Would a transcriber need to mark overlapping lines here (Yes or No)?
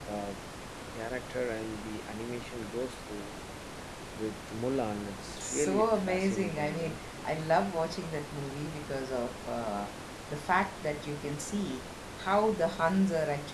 Yes